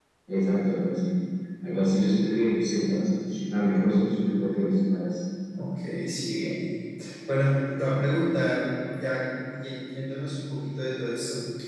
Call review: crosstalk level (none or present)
none